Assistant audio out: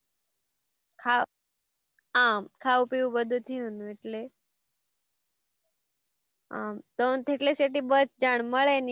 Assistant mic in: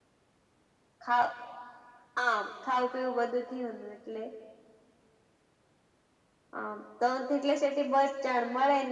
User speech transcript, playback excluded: none

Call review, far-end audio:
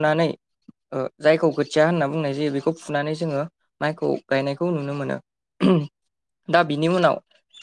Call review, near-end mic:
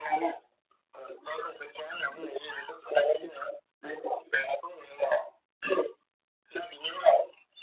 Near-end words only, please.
none

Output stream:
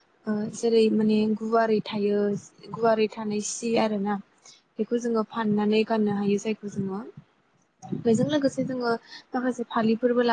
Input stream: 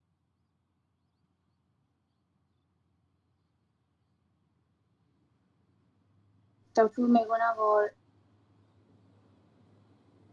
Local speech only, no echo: दावथु मेगन आगर

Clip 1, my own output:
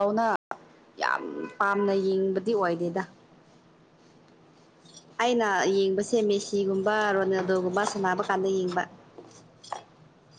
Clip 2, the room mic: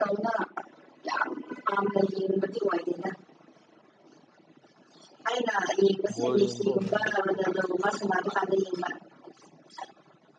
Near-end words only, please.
ꯕꯣꯜ ꯌꯦꯡꯕ꯭ꯔꯣ ꯅꯣꯏꯗꯤ ꯋꯥꯜꯀꯞ ꯒꯨꯝꯕ ꯌꯦꯡ

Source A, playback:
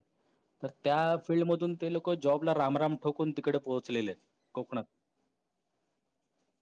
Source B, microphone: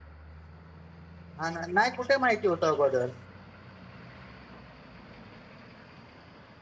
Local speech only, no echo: हा ना नाही कुठे माहिती होतं अगोदर

